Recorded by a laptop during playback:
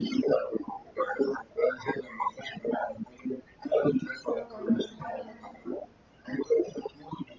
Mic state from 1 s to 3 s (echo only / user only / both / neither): echo only